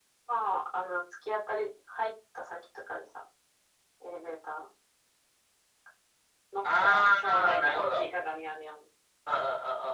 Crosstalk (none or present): present